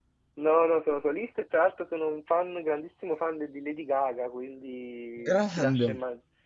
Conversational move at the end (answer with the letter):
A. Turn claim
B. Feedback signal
B